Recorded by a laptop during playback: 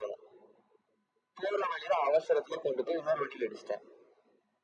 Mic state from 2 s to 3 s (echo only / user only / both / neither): echo only